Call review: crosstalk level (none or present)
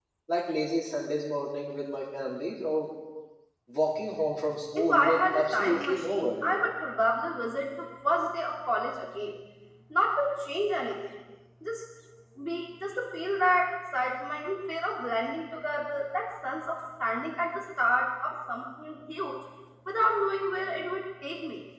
present